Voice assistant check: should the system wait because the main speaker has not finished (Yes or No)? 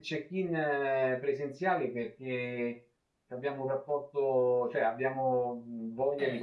No